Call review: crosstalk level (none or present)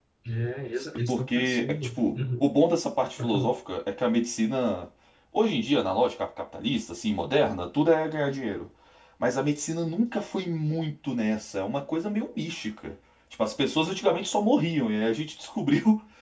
present